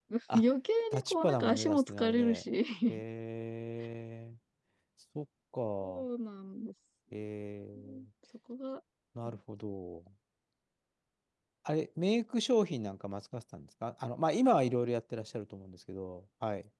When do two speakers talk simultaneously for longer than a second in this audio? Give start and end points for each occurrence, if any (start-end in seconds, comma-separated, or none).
0.9-2.4